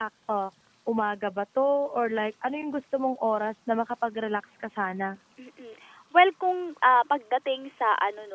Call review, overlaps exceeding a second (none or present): none